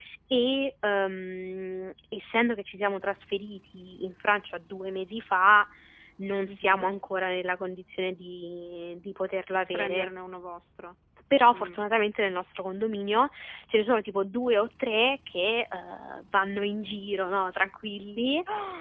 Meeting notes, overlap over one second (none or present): none